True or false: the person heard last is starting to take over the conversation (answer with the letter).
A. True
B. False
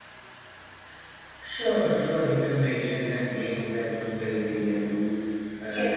A